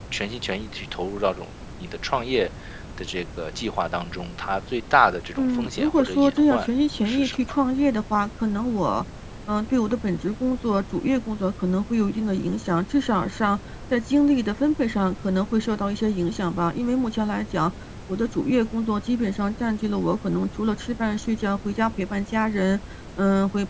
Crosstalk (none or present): present